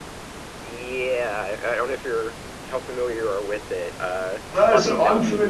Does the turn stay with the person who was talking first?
No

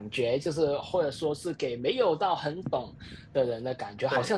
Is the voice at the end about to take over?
No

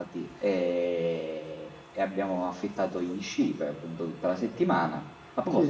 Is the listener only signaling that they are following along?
No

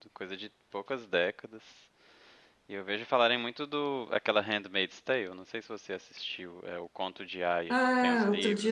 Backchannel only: No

